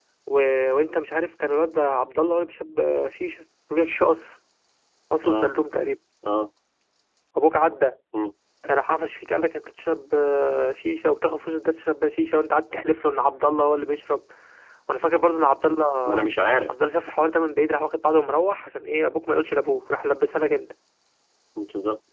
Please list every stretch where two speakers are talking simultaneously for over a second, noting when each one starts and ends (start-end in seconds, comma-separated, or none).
none